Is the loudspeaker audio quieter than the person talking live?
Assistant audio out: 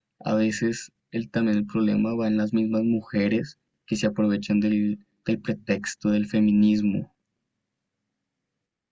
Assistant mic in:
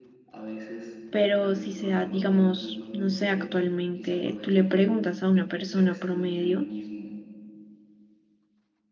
Yes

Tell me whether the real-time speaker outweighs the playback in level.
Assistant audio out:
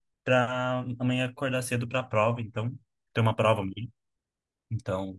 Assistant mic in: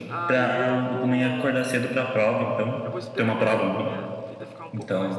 No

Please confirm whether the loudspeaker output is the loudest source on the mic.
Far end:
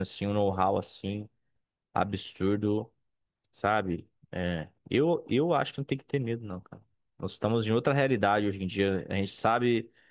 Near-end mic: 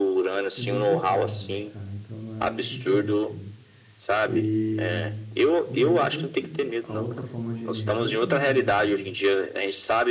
Yes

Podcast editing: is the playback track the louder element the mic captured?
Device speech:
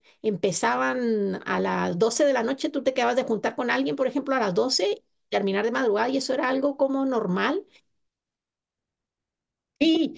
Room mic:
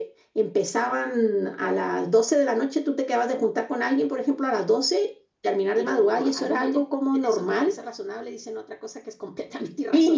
Yes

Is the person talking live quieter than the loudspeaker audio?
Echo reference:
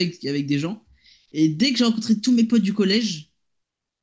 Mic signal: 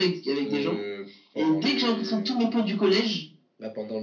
Yes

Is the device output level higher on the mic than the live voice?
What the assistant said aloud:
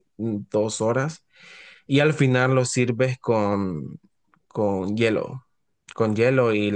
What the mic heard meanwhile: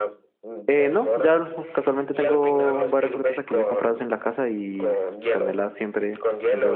No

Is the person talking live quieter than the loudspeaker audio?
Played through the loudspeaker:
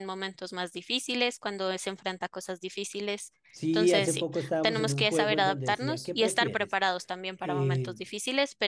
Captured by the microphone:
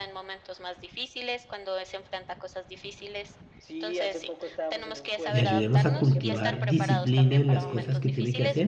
No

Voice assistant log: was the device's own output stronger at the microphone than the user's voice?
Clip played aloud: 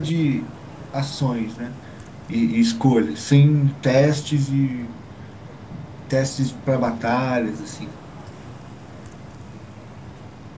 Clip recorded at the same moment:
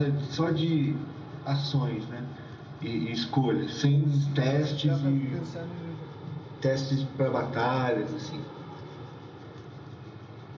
Yes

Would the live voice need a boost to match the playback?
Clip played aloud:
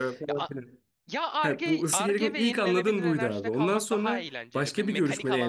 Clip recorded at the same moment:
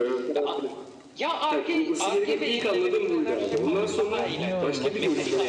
Yes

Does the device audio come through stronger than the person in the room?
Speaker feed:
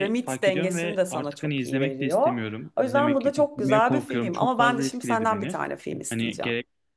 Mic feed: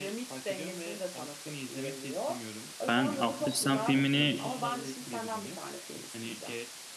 No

